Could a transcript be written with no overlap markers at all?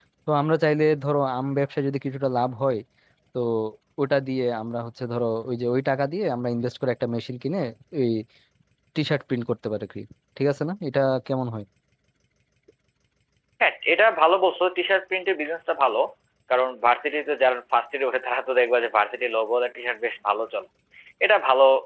Yes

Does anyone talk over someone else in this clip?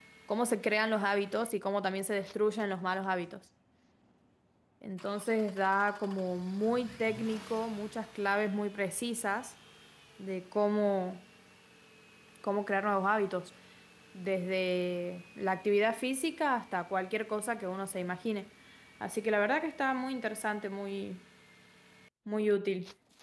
No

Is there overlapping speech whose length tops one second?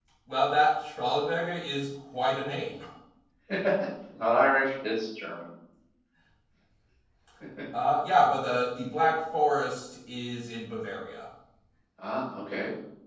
No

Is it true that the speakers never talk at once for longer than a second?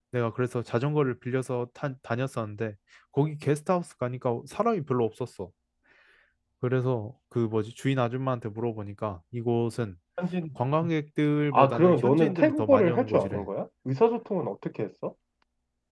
No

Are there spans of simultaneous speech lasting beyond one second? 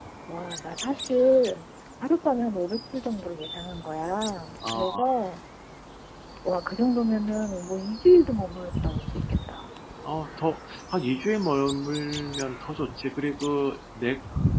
No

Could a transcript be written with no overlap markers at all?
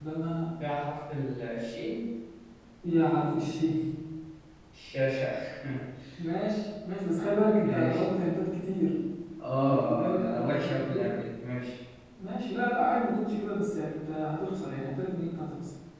No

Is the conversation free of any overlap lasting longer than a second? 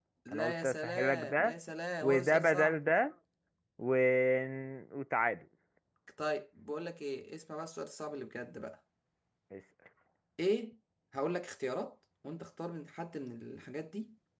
No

